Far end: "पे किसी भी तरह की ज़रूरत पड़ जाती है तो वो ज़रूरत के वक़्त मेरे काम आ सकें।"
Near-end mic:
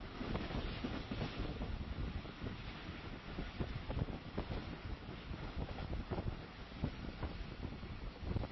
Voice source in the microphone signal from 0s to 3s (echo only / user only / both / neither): neither